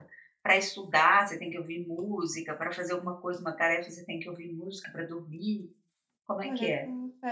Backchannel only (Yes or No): No